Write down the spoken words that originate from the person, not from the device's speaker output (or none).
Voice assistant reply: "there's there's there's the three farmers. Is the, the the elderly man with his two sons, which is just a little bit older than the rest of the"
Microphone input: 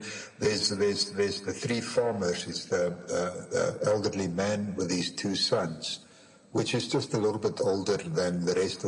none